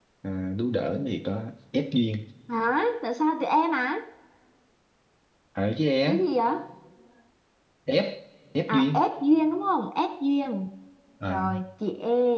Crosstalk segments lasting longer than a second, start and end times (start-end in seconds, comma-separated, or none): none